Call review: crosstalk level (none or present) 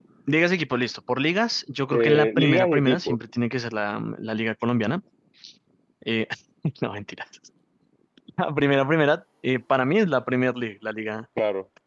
present